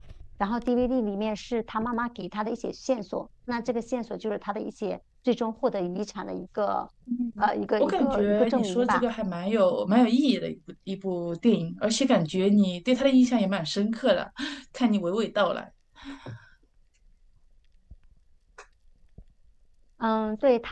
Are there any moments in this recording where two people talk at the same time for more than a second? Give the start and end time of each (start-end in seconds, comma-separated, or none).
7.8-9.0